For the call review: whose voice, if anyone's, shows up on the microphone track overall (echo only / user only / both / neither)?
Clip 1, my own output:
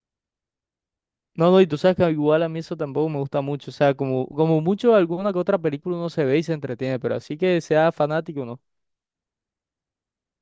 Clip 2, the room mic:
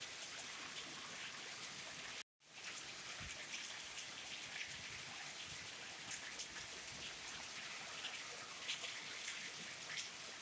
neither